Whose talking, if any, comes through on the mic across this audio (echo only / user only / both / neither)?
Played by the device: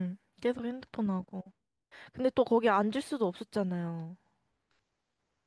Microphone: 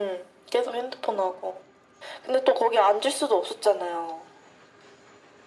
echo only